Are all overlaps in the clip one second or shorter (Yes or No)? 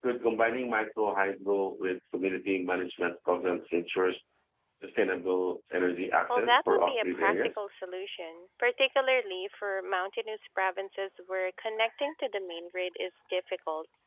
No